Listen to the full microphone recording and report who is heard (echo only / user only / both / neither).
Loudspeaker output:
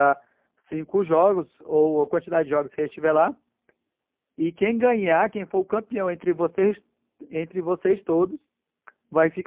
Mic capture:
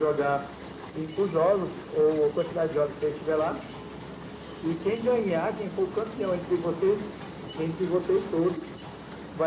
echo only